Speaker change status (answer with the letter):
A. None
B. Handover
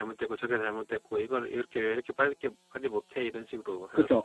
B